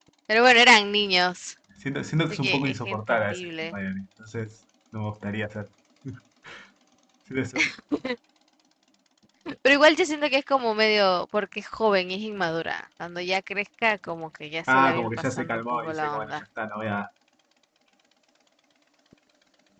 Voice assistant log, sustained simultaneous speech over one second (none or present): present